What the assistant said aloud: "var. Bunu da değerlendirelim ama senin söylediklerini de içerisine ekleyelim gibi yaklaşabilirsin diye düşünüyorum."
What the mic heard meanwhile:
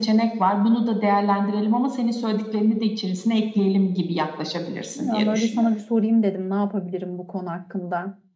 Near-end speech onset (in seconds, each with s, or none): 4.9 s